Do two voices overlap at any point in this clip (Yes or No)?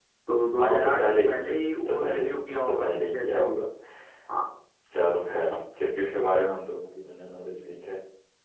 Yes